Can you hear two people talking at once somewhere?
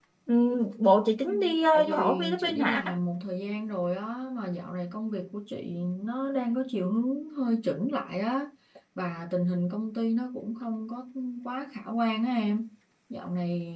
Yes, from 1.2 s

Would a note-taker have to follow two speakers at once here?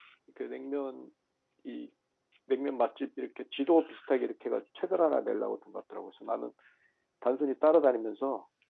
No

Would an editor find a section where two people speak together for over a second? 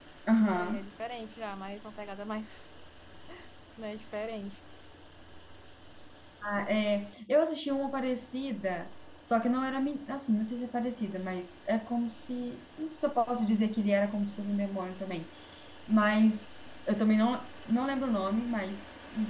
No

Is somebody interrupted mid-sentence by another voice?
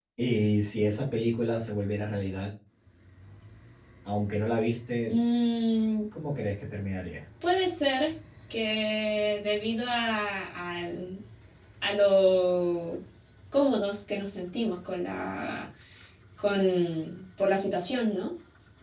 No

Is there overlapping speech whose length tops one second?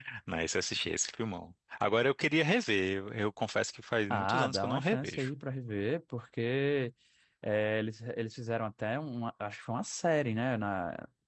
Yes, from 4.1 s

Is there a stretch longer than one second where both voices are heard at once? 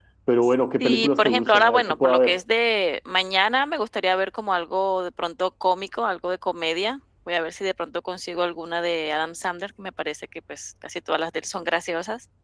Yes, from 0.8 s

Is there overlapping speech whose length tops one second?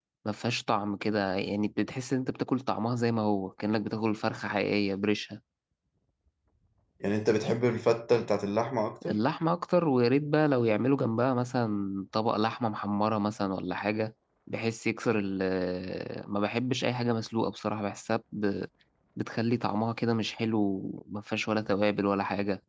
No

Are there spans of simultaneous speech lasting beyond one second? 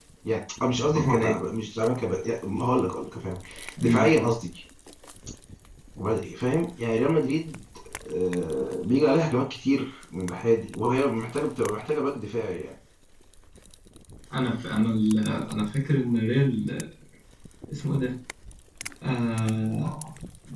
No

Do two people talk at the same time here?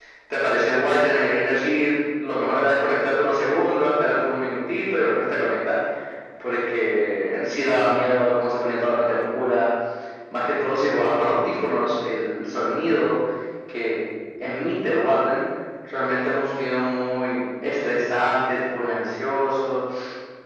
No

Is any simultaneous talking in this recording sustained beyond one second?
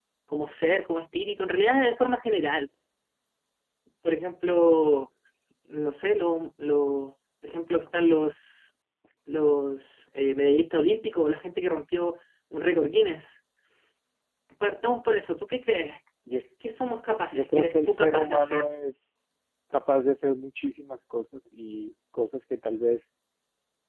Yes, from 17.3 s

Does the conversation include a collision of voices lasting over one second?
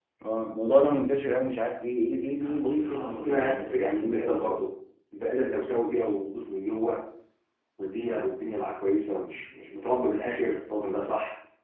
Yes, from 2.4 s

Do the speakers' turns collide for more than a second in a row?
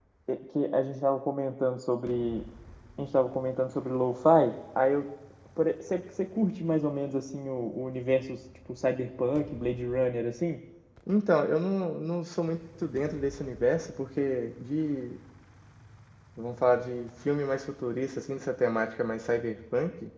No

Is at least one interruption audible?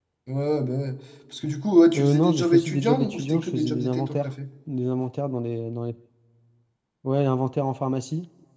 Yes, from 1.9 s

